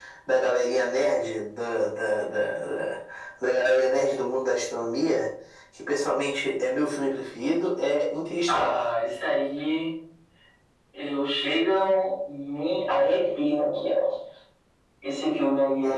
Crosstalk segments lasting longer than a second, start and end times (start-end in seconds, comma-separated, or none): none